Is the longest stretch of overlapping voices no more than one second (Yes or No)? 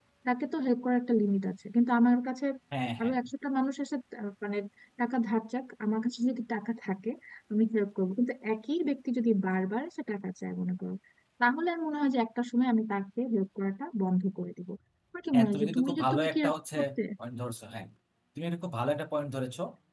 No